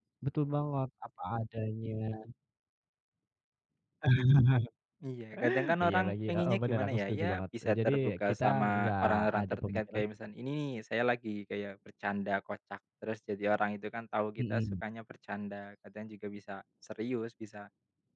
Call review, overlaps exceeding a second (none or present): present